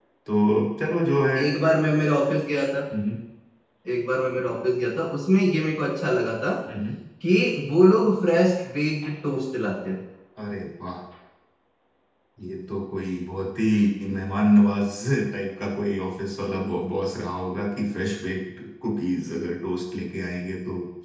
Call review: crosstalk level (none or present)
none